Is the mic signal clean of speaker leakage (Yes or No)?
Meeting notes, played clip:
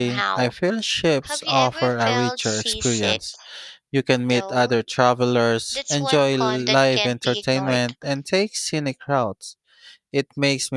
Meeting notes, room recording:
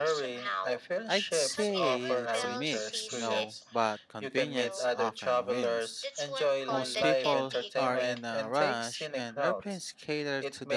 No